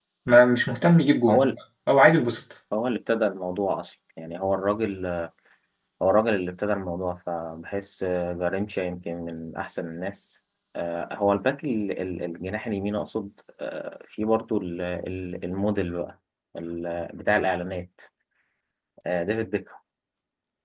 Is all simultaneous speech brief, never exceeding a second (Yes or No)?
Yes